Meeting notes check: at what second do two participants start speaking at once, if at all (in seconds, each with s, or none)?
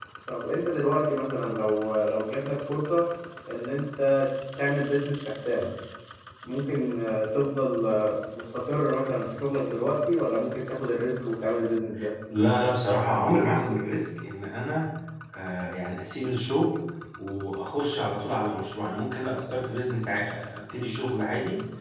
none